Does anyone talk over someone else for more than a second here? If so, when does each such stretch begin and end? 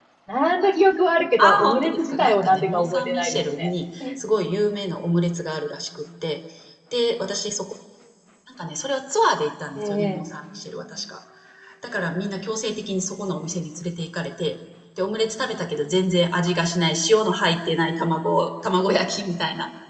1.4-3.7

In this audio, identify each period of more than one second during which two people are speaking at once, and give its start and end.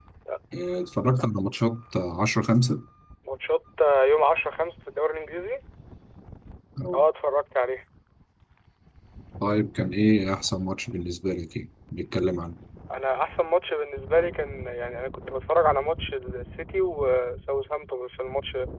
none

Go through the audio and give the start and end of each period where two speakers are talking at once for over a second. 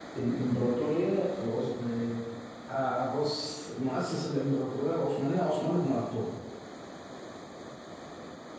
none

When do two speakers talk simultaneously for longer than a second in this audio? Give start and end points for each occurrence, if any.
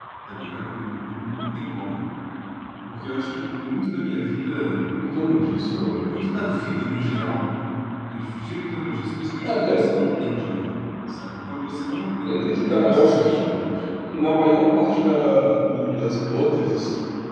12.2-13.5

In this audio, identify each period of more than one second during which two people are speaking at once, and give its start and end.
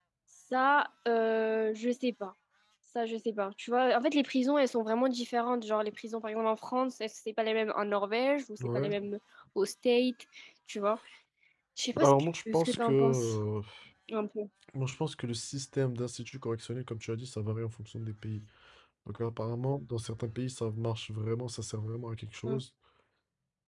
12.0-13.3

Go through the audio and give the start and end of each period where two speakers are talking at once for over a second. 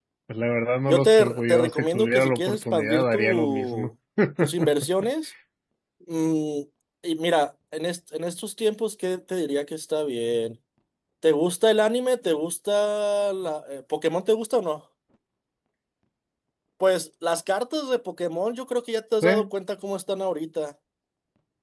0.9-3.9

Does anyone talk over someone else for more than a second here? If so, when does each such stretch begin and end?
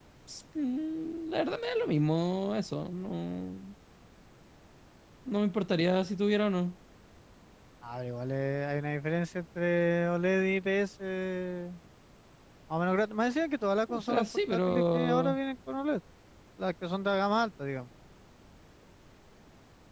13.9-15.4

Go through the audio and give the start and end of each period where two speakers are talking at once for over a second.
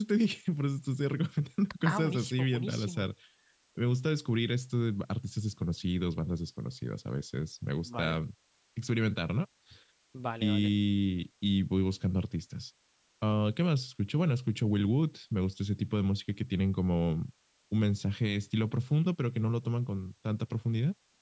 1.8-3.0

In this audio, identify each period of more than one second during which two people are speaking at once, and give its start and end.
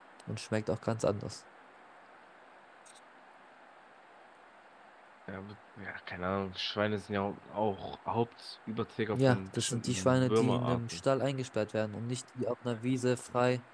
9.1-11.0

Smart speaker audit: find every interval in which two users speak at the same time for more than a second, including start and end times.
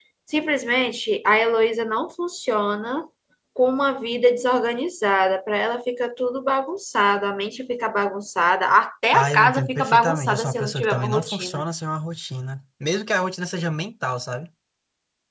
9.1-11.6

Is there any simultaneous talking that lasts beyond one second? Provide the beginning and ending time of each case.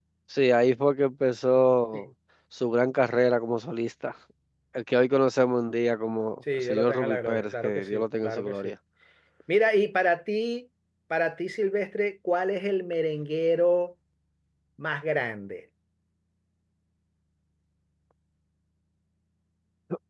6.5-8.7

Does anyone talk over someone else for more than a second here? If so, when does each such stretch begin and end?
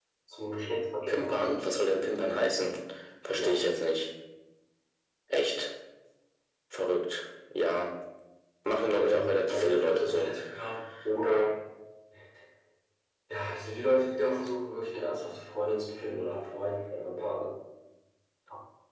9.0-10.3

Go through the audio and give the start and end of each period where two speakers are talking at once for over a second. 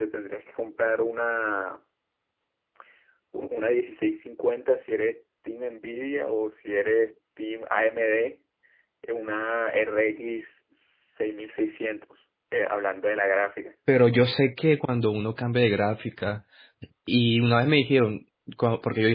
none

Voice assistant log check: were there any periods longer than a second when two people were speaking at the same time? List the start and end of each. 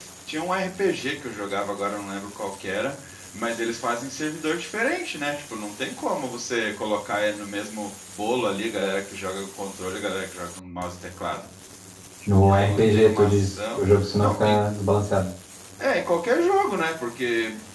12.4-13.8

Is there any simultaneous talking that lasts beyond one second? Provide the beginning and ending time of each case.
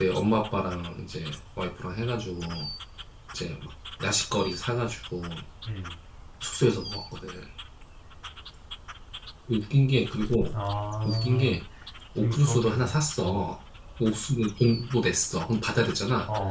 12.2-13.5

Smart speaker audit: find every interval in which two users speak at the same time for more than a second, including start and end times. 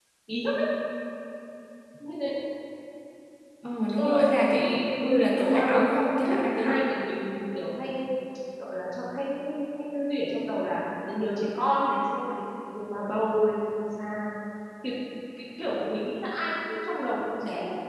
4.0-5.8

